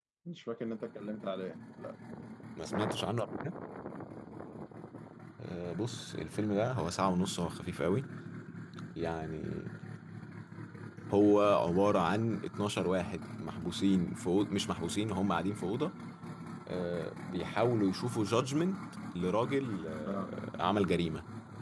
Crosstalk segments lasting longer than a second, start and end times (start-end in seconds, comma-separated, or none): none